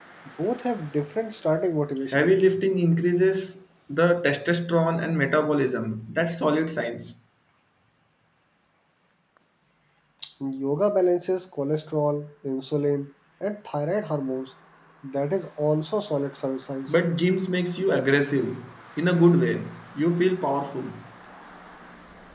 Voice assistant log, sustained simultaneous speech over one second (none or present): none